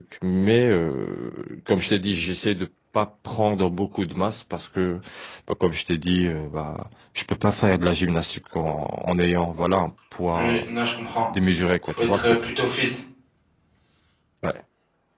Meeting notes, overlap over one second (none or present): none